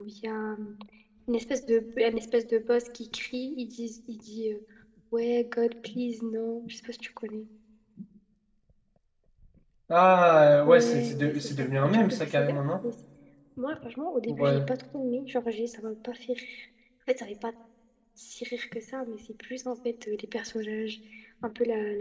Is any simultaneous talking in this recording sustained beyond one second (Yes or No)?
Yes